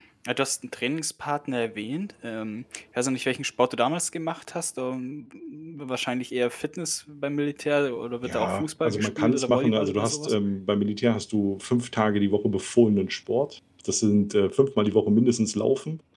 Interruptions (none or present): present